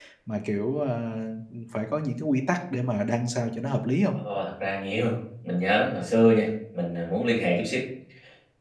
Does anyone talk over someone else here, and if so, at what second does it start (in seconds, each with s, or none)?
none